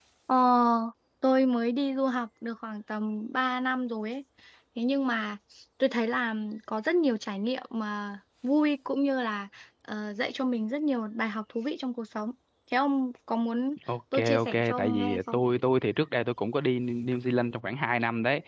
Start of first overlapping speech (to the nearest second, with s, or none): 14 s